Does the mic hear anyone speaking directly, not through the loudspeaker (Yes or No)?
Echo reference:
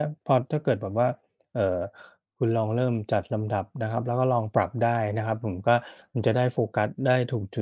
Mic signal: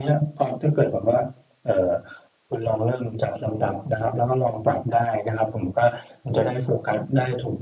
No